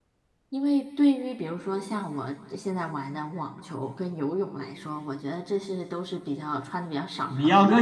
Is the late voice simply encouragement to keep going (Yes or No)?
No